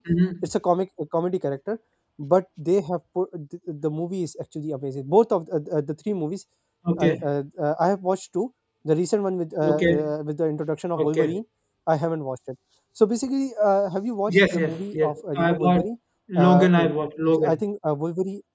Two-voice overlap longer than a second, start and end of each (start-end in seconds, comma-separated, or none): 14.3-15.8